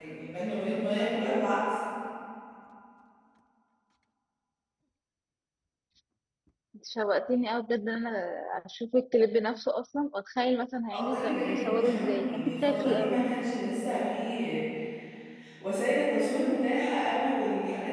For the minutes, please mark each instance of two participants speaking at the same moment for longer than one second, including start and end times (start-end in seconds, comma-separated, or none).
10.9-13.2